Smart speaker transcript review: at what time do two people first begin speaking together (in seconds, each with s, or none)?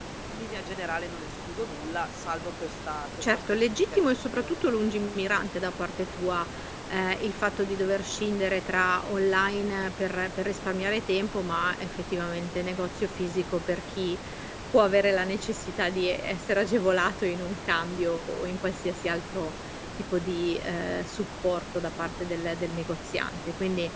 3.2 s